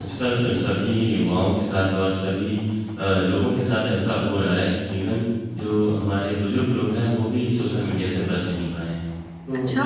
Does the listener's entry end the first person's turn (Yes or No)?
No